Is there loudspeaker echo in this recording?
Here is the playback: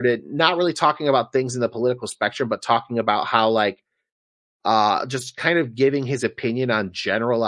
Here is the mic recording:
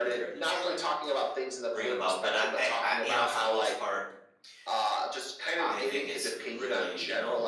Yes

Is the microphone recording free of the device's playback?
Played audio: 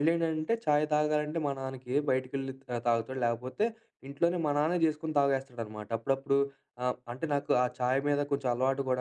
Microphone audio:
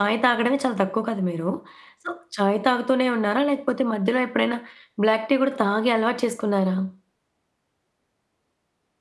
Yes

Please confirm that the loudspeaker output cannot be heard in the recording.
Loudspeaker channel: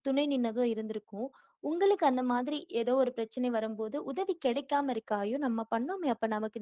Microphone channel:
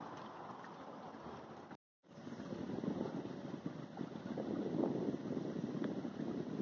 Yes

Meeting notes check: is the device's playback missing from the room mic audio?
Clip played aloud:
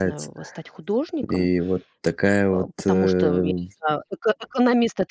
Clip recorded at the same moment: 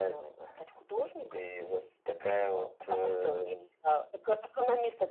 No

